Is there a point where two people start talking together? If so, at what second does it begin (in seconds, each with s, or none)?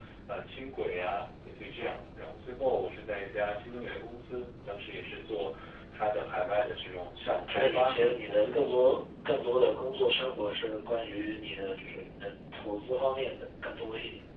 7.5 s